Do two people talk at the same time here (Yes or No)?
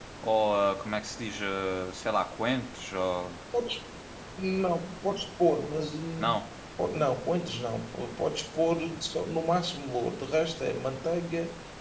No